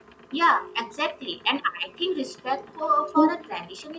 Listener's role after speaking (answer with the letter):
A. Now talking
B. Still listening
B